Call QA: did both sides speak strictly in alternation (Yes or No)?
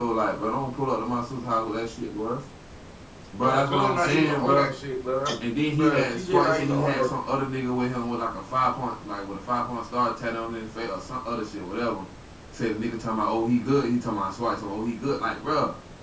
No